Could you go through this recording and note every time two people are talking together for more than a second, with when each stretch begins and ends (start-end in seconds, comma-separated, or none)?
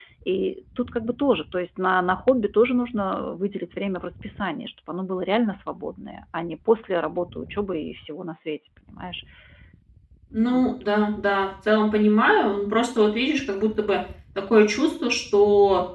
none